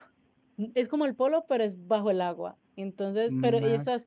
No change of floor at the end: Yes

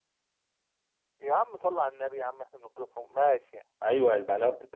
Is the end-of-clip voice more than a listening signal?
Yes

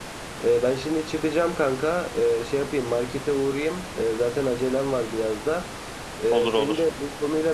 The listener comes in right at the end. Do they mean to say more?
No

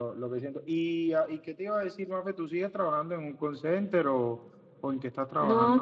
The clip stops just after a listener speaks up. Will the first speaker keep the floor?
No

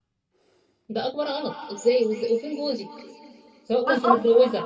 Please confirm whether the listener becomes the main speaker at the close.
No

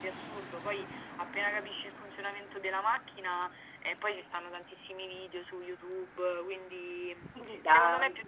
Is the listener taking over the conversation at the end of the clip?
No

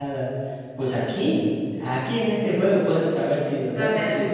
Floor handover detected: No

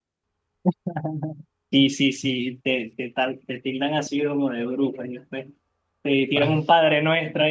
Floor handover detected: No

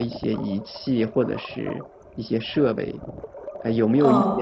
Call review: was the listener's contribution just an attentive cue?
Yes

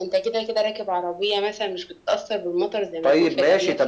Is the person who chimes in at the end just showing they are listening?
No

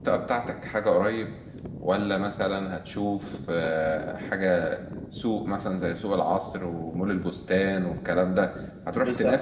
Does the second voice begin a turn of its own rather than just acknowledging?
No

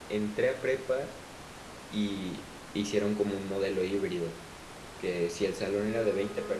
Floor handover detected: No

